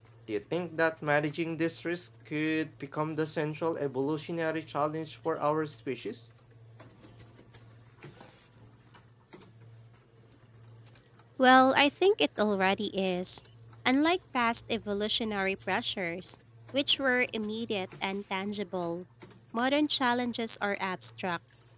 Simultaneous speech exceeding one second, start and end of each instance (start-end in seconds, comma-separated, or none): none